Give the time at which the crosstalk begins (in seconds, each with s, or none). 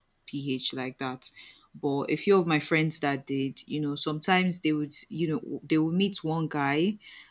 none